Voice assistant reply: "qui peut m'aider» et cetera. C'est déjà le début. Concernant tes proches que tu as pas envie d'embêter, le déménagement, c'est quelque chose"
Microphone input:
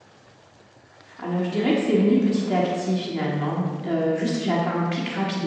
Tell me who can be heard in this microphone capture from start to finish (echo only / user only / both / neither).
user only